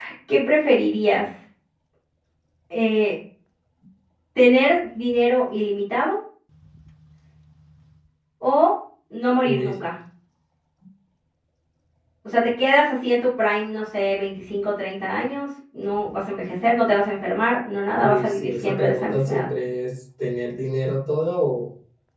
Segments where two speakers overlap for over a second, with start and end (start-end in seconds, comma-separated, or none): 18.0-19.4